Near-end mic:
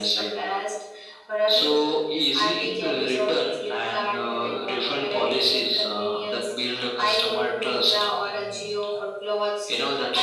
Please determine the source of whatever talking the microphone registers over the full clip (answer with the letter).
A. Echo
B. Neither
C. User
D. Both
A